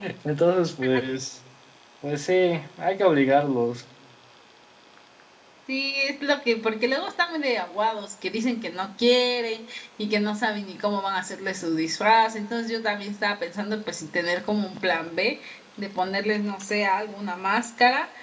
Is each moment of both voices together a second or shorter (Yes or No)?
Yes